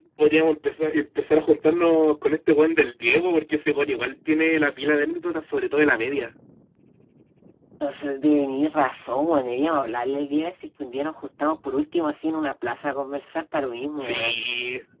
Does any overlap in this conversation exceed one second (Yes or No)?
No